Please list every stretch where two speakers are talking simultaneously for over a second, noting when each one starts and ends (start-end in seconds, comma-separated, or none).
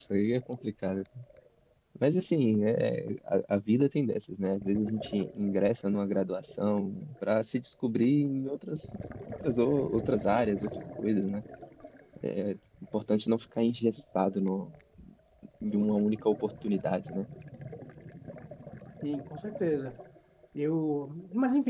none